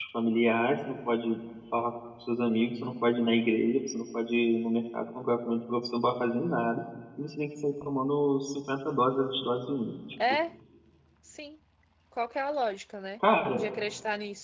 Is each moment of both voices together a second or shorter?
Yes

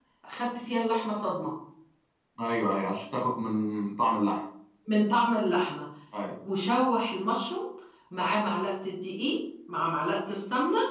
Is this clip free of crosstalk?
Yes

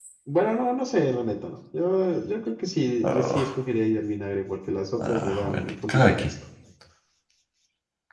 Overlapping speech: Yes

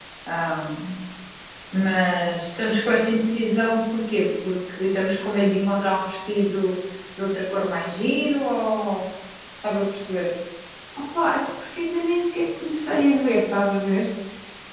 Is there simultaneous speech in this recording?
No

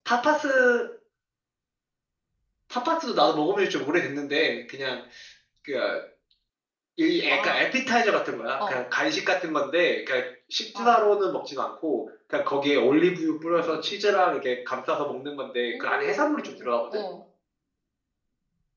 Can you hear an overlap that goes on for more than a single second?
Yes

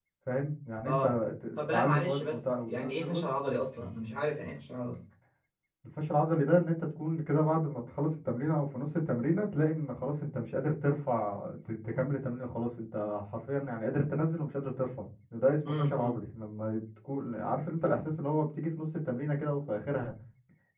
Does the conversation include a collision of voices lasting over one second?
Yes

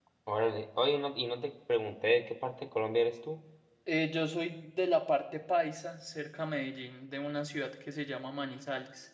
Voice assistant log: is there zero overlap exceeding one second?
Yes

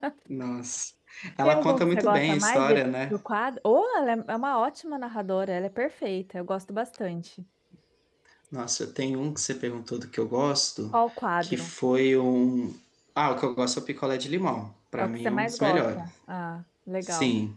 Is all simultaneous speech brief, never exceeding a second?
No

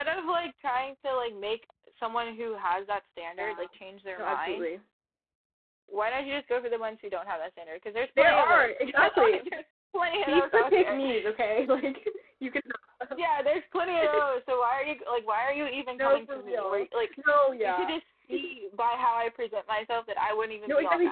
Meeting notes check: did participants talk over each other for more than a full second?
Yes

